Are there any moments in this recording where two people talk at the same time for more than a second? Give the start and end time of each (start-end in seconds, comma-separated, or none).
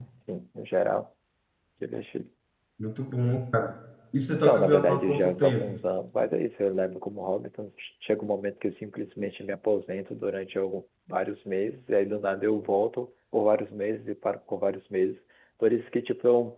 4.3-5.8